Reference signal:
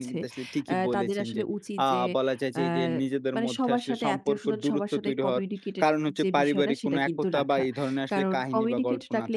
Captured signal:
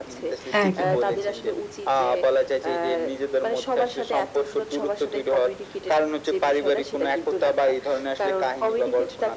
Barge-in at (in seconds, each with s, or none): 0.6 s